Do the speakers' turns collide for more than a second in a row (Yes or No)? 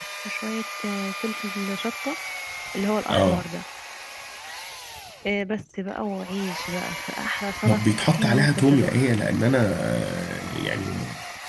Yes